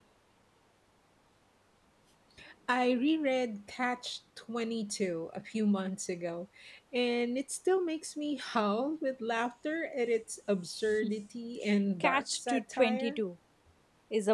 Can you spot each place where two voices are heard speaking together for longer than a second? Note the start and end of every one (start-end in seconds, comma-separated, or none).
12.0-13.2